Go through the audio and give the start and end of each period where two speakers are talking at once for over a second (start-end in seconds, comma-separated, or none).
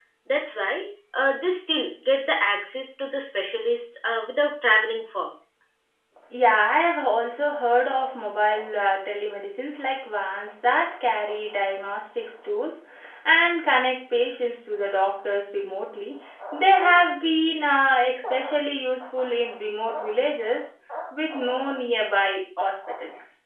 none